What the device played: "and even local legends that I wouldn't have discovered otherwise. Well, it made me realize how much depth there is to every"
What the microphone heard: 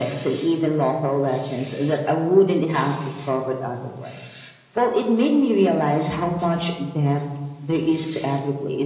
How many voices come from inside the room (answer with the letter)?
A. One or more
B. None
B